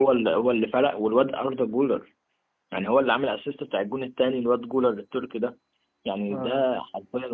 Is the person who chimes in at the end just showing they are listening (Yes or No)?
Yes